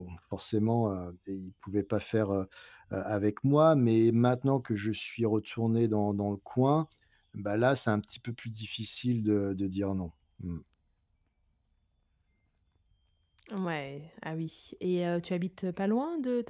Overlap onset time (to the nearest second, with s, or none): none